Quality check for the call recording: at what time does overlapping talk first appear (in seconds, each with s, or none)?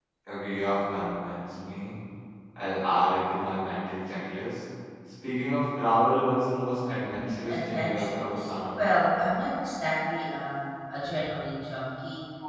7.0 s